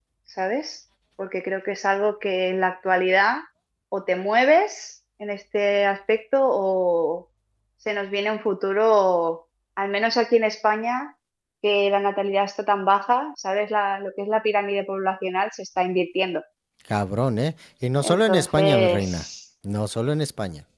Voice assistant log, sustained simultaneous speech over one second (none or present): present